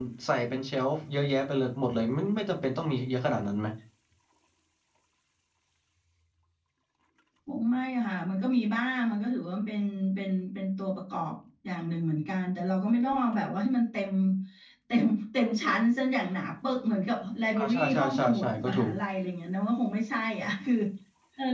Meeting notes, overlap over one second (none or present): present